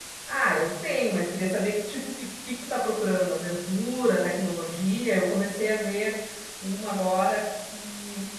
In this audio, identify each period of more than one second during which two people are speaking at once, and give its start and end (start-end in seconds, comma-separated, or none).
none